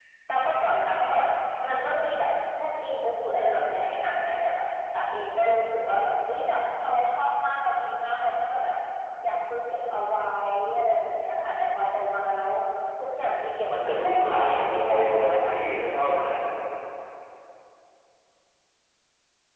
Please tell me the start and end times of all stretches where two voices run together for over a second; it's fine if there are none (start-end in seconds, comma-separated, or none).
13.8-15.5